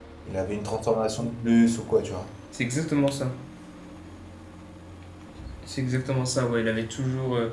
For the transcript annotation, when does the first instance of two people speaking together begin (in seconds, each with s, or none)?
none